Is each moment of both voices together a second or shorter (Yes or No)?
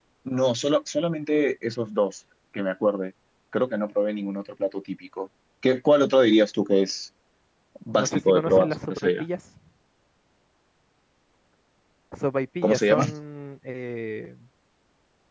No